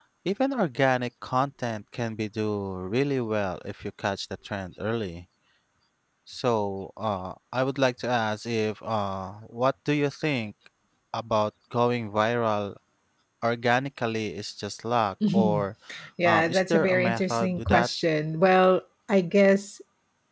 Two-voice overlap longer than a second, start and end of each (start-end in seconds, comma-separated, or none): 16.2-17.9